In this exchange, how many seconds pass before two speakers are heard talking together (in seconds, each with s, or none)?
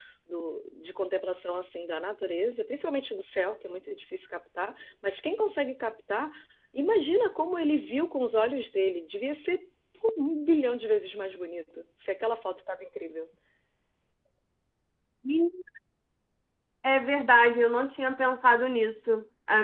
none